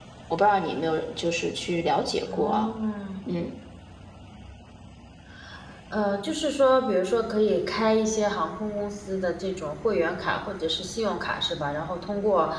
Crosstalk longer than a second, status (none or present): none